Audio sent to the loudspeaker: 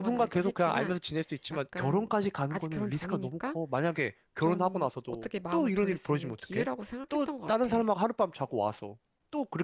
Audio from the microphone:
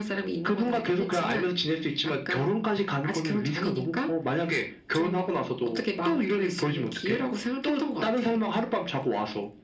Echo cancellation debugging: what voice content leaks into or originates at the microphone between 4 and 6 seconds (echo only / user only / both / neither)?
echo only